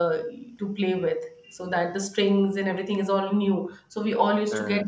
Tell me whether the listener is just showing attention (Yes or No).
Yes